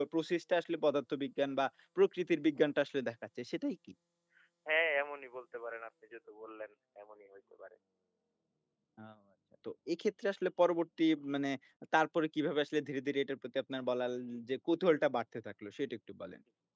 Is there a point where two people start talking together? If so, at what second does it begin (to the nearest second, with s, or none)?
none